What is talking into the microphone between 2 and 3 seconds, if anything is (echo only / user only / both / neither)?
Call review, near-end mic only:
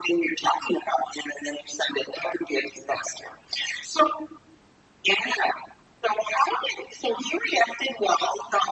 echo only